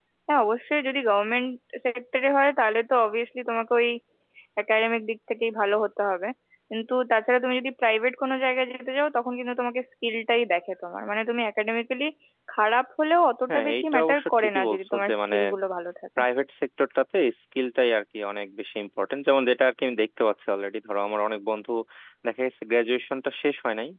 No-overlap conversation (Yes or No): No